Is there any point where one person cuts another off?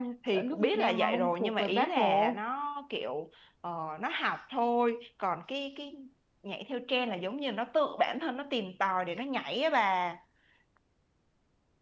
Yes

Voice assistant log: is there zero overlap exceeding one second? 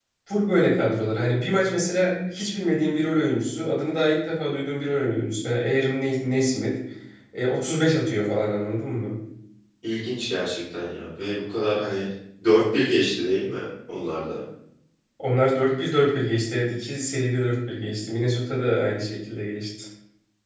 Yes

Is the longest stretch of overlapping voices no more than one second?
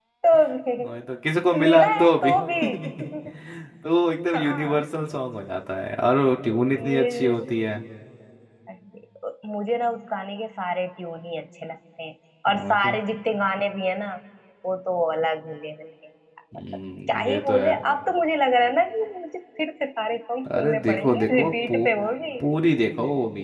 No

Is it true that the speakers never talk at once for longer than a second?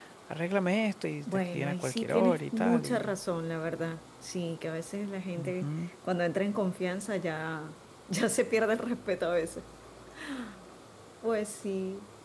No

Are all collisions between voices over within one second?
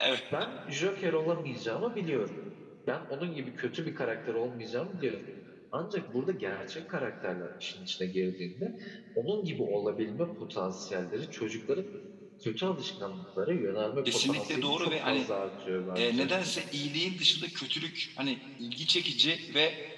No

